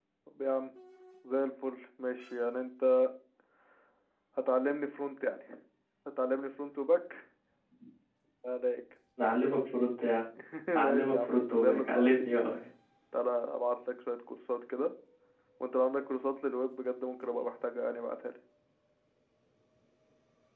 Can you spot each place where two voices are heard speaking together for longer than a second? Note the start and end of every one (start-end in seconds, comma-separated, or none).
10.8-12.3